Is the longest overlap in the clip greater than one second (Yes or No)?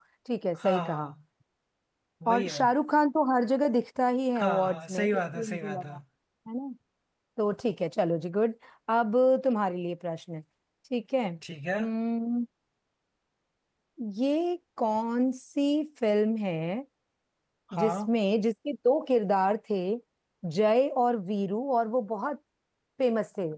Yes